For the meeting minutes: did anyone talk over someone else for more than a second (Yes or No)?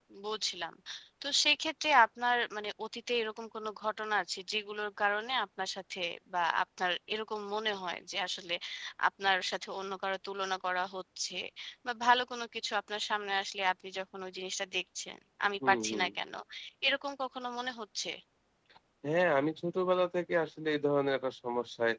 No